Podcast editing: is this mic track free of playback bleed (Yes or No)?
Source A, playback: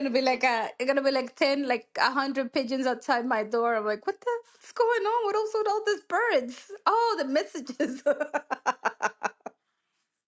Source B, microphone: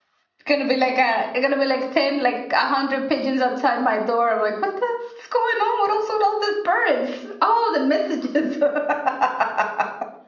No